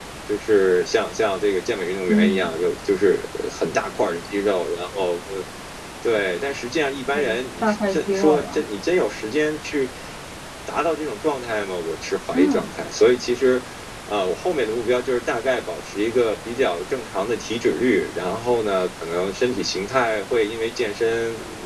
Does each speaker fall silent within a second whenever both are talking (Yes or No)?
No